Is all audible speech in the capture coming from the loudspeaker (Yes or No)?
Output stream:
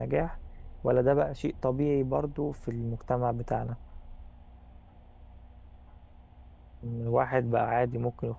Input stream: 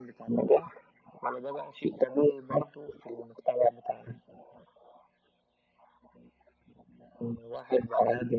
Yes